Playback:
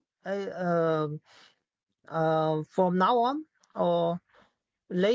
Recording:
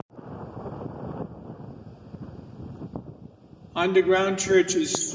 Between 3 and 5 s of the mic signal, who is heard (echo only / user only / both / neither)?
user only